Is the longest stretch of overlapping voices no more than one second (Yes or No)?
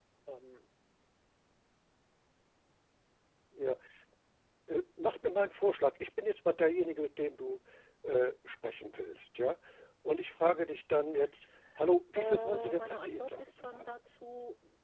No